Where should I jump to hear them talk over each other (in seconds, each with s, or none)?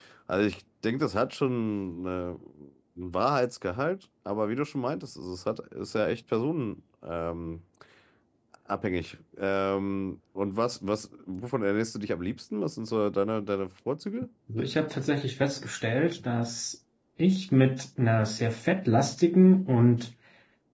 none